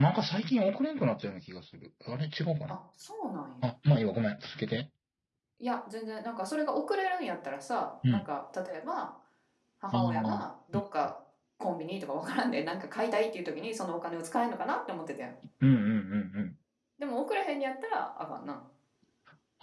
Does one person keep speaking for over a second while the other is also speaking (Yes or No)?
No